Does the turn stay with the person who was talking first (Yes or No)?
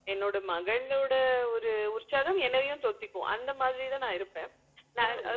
Yes